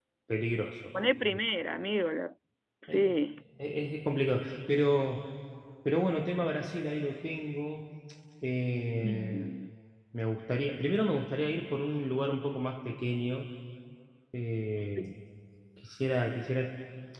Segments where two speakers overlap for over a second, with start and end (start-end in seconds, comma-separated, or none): none